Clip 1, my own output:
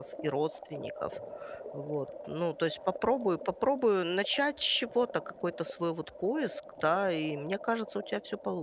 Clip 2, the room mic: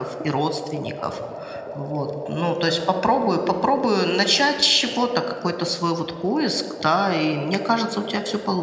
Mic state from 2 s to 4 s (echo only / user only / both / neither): echo only